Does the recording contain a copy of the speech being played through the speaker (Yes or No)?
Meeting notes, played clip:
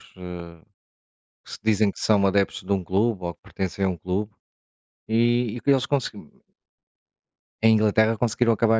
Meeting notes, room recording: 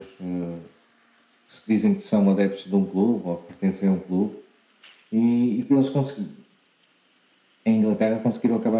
Yes